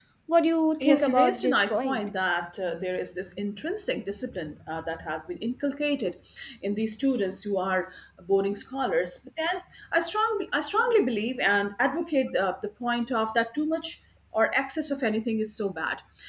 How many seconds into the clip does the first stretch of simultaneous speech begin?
0.8 s

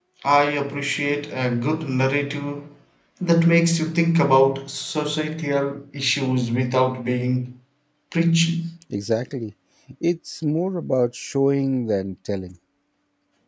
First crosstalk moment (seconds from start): none

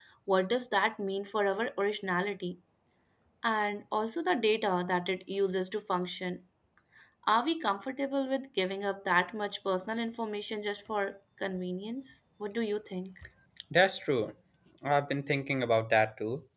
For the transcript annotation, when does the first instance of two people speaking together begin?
none

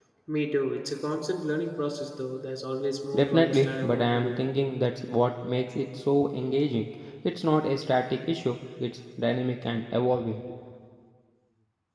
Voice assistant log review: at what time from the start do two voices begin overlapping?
3.1 s

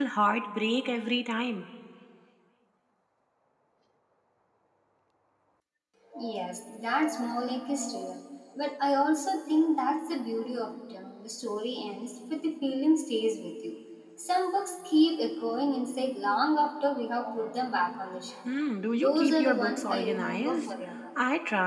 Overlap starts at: 18.9 s

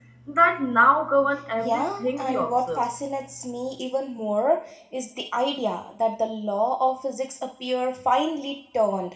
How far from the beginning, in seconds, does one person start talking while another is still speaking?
1.6 s

